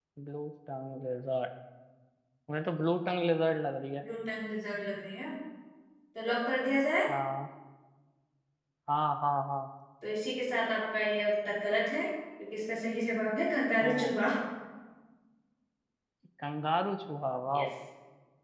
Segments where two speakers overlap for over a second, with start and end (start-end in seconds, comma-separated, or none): none